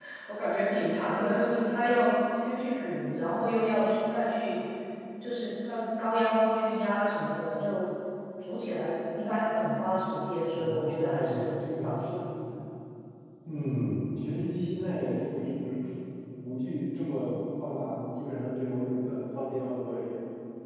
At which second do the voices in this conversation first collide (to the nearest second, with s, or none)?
10 s